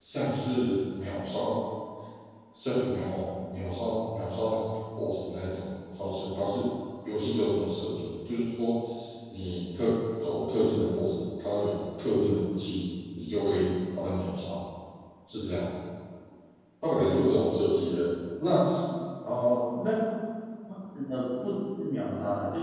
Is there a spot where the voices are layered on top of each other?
No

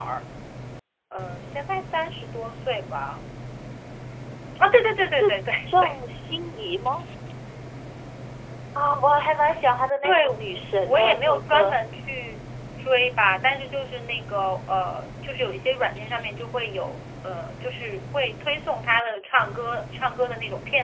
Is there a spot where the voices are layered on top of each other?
Yes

